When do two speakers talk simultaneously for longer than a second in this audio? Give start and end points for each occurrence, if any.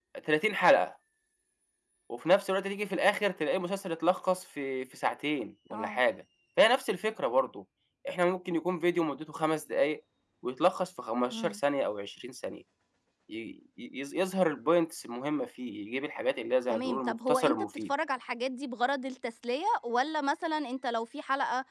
16.7-17.9

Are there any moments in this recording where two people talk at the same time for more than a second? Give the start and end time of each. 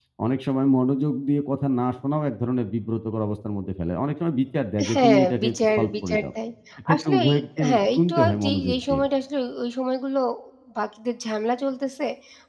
4.9-6.3, 6.9-9.0

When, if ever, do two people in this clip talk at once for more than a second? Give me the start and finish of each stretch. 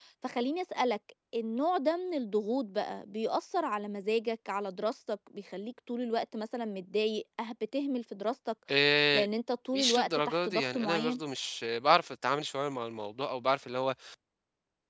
9.8-11.2

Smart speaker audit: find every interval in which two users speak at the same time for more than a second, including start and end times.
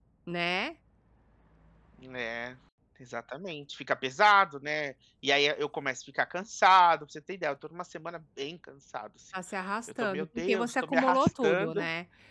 10.0-11.8

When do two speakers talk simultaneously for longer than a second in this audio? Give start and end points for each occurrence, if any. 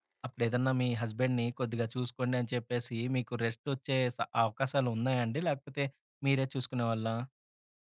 none

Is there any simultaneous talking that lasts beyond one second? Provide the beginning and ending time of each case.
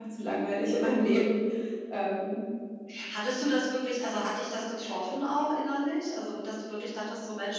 none

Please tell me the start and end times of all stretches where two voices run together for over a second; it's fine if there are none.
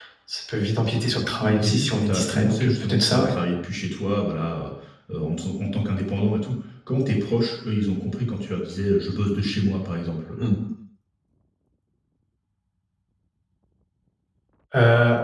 1.4-3.3

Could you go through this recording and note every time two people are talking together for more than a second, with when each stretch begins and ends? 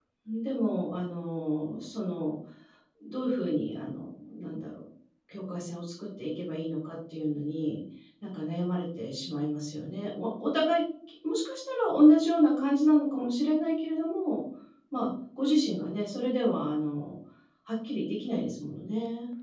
none

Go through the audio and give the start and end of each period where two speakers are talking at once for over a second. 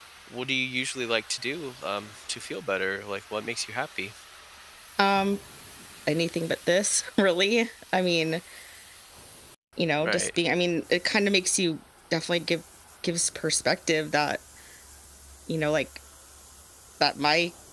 none

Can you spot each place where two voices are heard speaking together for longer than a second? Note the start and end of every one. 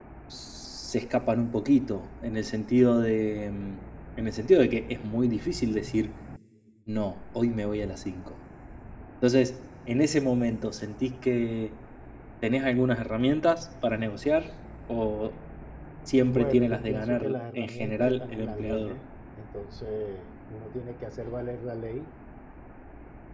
16.2-18.9

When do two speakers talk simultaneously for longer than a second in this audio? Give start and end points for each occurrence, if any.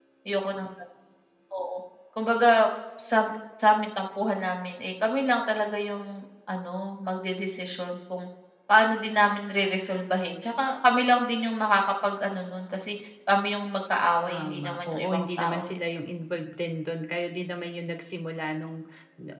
14.3-15.7

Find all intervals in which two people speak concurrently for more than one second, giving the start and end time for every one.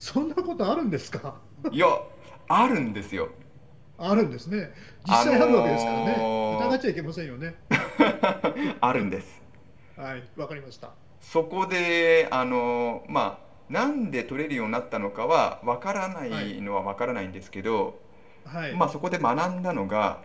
5.1-6.8

